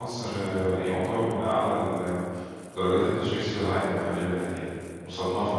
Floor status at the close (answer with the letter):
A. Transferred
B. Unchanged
A